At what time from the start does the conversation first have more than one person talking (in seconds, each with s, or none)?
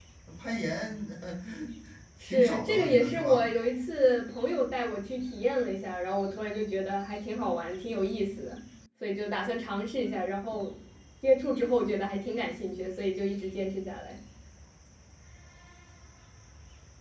2.2 s